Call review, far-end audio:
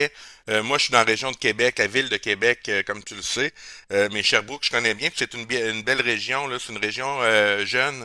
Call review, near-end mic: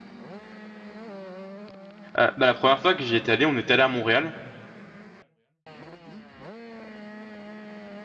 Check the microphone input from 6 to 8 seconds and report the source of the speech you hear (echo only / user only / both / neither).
neither